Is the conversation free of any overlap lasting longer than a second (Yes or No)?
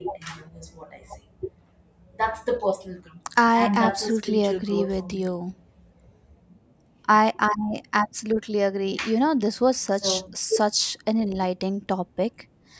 No